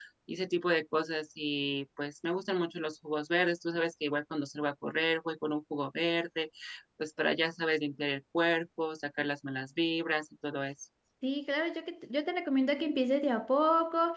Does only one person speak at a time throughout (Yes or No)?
Yes